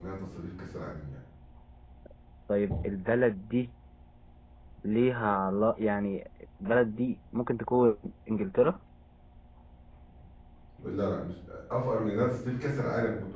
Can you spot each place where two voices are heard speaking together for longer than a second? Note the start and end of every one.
none

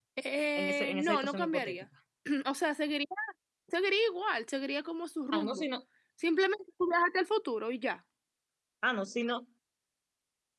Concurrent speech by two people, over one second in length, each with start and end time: 0.6-1.8

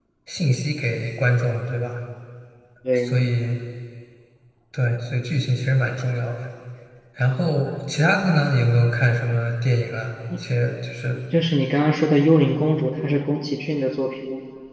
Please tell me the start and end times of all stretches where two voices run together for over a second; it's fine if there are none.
none

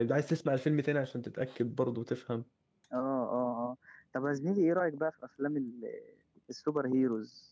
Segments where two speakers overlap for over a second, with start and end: none

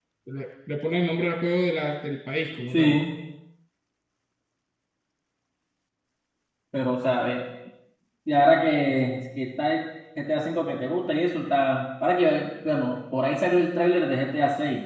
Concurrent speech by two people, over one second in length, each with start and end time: none

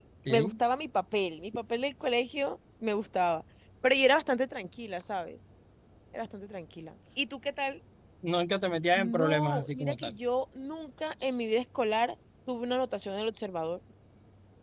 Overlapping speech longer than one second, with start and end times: 8.9-10.2

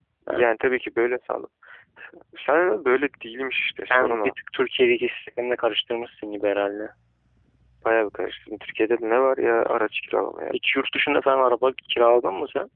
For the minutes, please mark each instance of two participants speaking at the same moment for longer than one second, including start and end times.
none

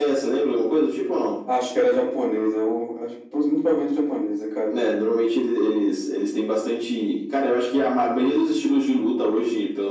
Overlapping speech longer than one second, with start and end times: none

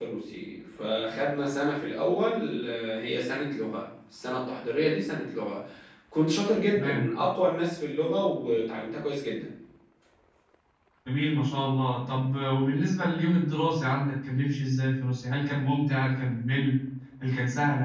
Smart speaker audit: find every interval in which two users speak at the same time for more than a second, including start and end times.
none

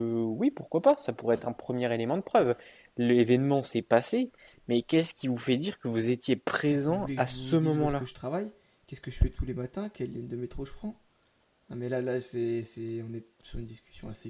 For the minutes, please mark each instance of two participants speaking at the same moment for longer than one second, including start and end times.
6.7-8.0

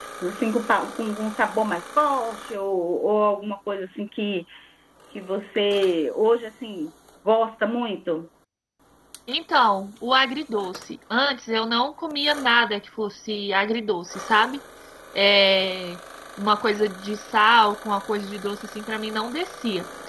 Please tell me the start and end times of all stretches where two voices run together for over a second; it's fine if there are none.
none

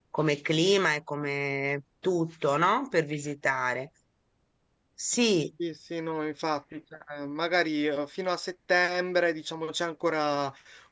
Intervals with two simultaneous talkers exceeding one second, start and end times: none

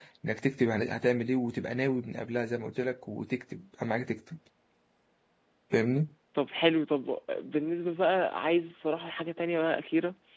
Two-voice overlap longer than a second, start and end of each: none

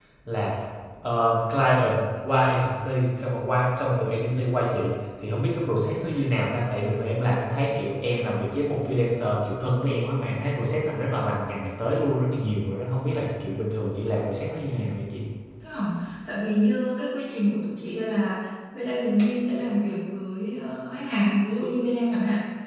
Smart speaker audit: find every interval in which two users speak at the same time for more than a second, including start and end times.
none

